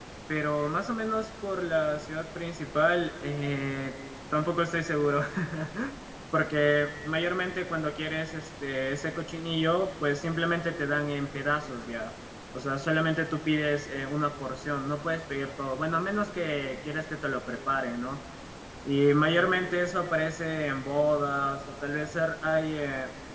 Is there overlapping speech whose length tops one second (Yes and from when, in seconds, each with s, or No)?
No